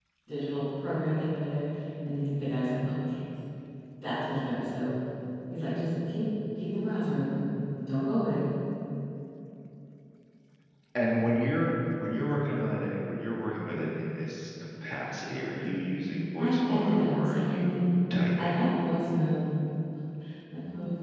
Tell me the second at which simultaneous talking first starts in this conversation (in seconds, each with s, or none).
16.4 s